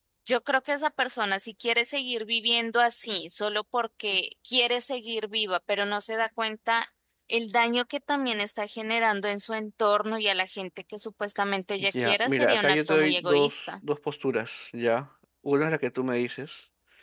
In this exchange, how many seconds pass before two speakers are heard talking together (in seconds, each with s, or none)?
11.9 s